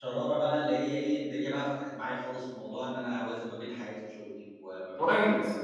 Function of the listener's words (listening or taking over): taking over